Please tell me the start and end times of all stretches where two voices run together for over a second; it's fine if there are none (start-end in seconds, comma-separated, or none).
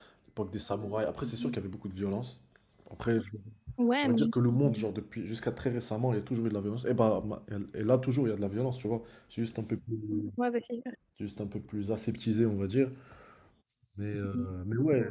none